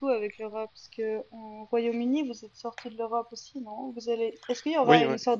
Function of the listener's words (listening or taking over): listening